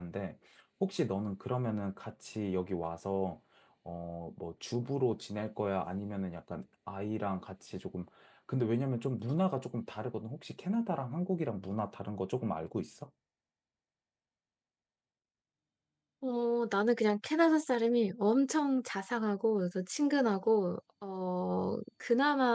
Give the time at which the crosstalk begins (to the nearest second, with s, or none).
none